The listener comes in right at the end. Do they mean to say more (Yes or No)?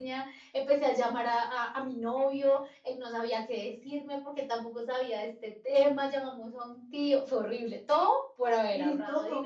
Yes